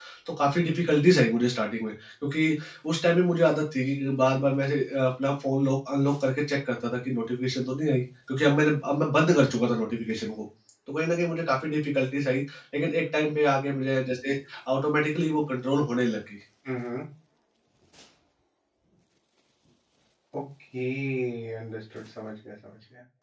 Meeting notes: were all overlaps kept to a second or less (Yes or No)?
Yes